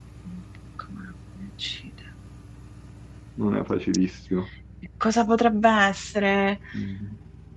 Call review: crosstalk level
none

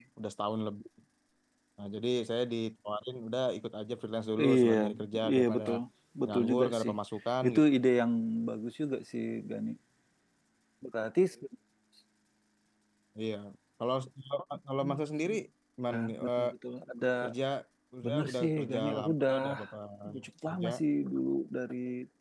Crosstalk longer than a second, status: present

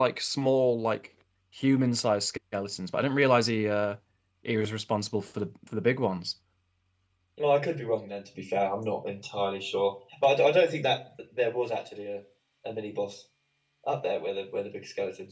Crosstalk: none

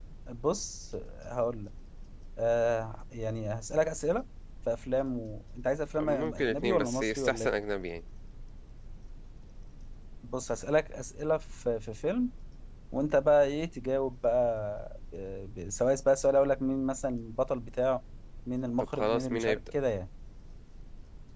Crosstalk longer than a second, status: present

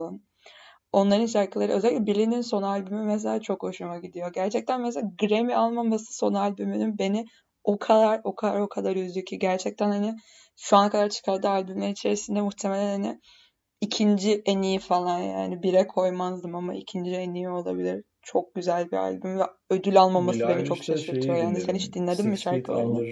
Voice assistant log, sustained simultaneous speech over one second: present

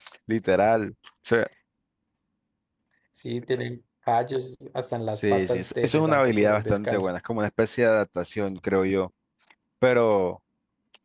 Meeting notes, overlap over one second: present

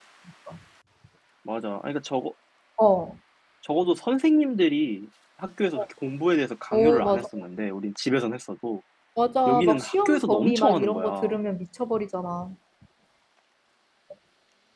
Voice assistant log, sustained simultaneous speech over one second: present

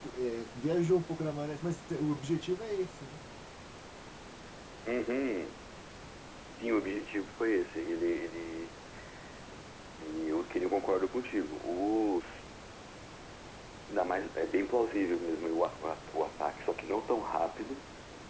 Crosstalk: none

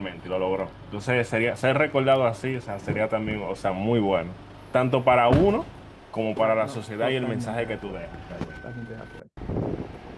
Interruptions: present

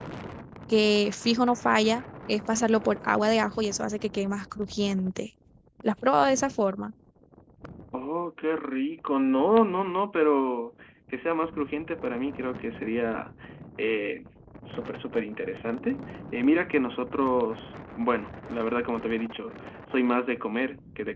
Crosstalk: none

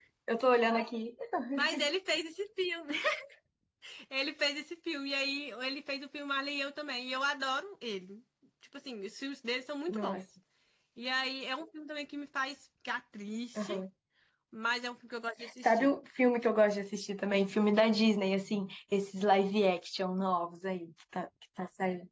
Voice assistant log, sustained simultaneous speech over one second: none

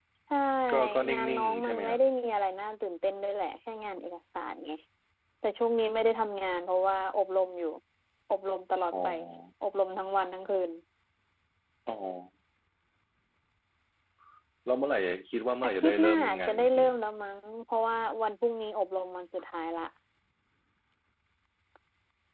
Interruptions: present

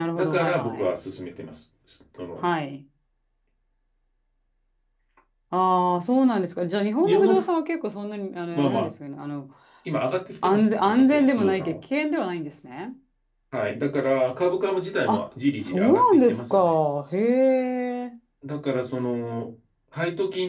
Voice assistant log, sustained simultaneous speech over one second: present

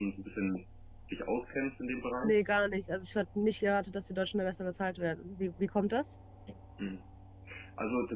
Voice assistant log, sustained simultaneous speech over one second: none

